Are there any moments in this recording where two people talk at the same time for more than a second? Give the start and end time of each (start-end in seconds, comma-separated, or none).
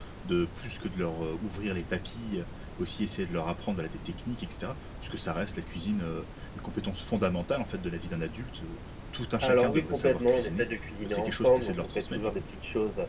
9.4-10.6, 11.0-12.3